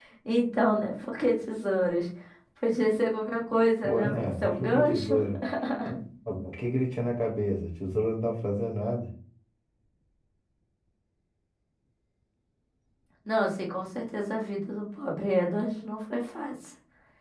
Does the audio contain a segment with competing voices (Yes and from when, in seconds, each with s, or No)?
Yes, from 3.8 s